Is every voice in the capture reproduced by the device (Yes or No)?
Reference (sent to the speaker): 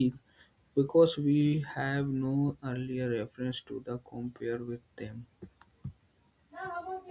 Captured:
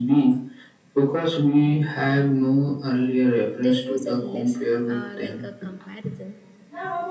No